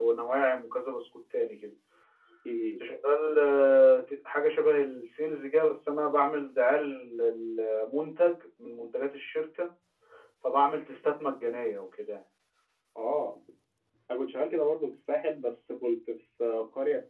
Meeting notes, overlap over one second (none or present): none